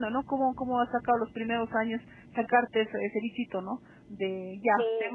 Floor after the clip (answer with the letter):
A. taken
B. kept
B